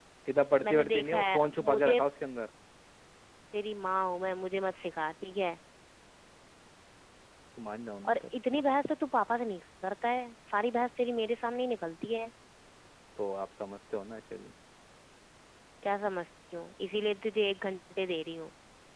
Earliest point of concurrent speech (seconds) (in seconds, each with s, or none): 0.6 s